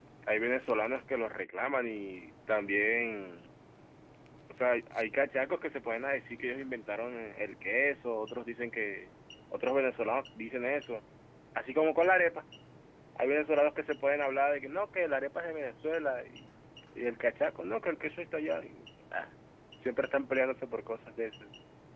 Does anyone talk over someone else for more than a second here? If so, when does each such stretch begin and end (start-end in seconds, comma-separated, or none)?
none